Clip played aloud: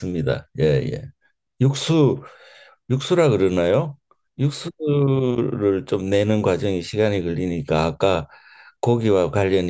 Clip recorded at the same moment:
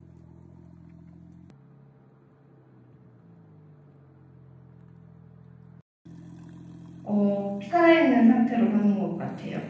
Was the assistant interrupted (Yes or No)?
Yes